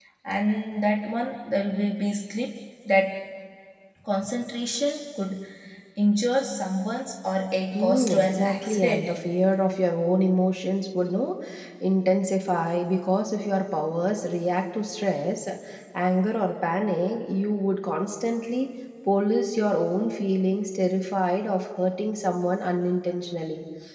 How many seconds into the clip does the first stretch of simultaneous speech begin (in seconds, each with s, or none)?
7.7 s